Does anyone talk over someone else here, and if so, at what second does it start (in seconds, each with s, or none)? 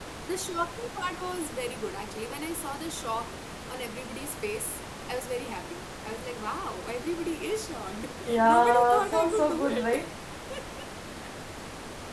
8.4 s